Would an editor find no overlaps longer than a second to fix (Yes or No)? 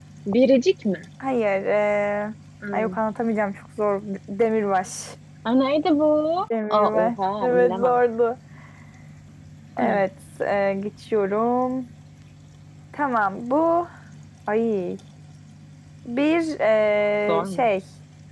No